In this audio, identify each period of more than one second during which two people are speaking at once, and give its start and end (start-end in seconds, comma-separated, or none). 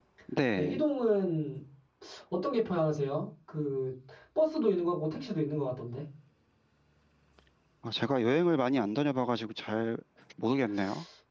none